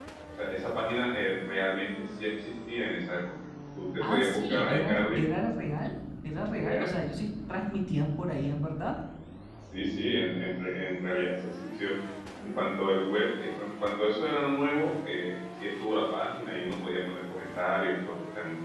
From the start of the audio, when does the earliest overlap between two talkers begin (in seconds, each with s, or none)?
4.0 s